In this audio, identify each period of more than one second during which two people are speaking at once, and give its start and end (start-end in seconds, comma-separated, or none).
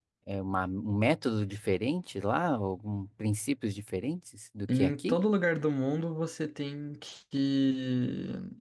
none